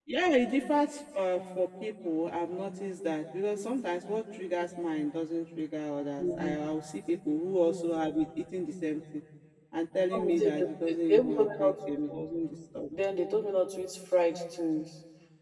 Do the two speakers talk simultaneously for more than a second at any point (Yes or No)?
Yes